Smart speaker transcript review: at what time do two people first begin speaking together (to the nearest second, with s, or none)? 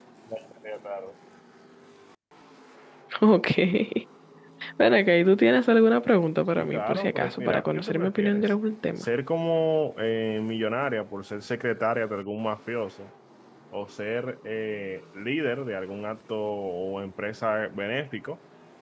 7 s